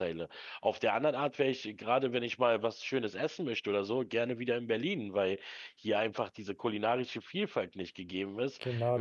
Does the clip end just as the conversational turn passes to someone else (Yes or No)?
Yes